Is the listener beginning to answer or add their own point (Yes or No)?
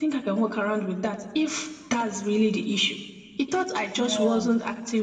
No